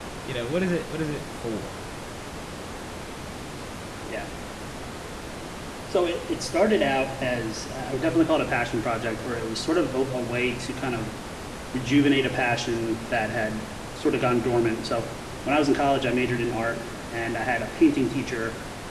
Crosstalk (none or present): none